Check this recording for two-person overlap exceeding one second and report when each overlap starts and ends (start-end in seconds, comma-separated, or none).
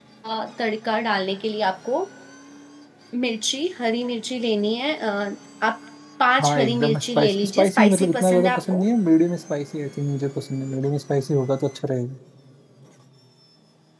6.4-8.8